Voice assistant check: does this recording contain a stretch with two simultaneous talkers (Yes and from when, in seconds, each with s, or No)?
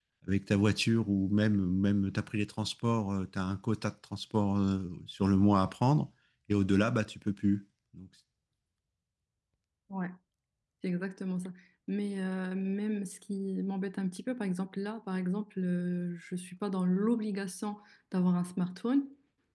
No